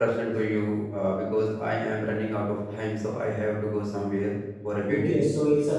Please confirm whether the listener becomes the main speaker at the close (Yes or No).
Yes